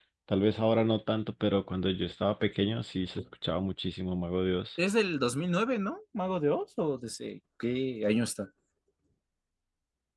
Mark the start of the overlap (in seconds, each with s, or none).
none